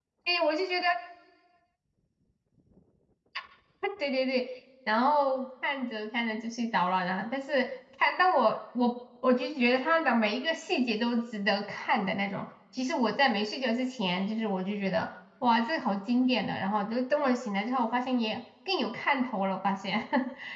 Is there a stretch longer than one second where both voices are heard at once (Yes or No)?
No